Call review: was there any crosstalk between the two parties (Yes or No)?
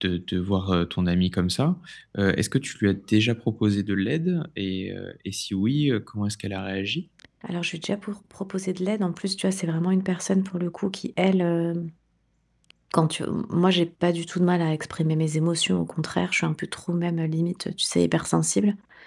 No